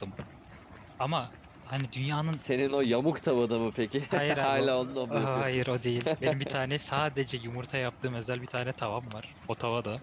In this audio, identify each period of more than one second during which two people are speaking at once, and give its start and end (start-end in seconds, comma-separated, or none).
4.1-5.6